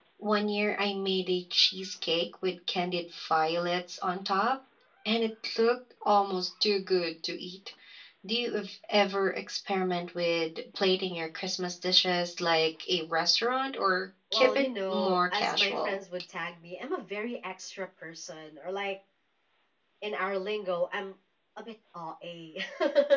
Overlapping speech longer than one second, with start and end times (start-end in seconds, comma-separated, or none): 14.3-16.0